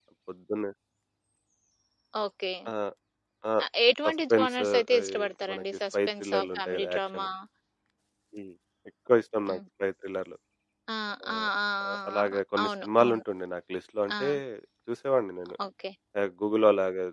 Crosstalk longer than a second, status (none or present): present